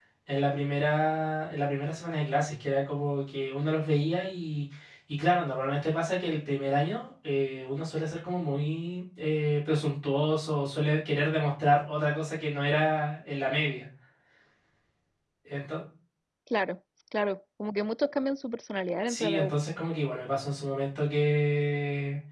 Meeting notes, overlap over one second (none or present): none